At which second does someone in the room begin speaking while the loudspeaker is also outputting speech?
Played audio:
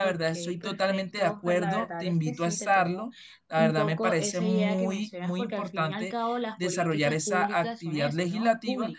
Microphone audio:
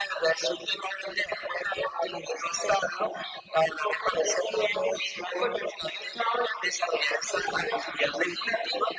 none

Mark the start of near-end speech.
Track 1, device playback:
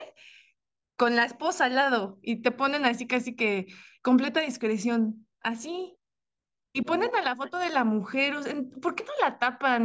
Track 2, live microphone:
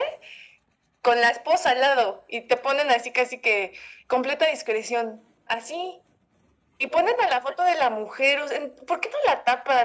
none

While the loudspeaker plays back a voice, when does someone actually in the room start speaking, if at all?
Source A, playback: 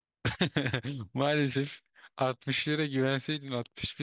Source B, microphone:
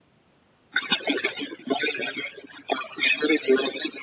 none

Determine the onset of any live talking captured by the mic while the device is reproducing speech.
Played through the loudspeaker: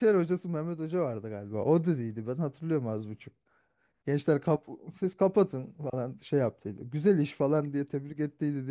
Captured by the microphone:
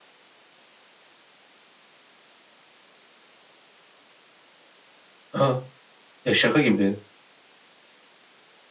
5 s

